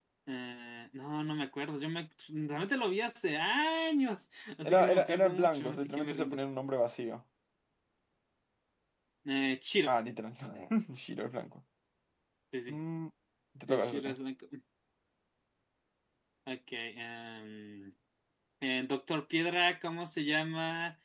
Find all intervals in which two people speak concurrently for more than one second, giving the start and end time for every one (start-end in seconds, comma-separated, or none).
4.7-6.4